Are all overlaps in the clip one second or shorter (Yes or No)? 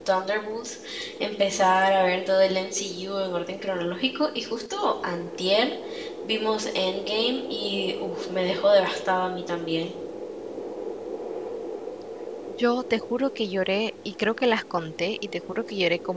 Yes